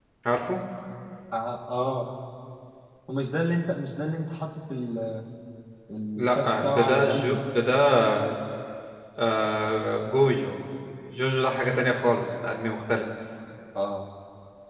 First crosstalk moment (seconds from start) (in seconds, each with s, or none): 6.2 s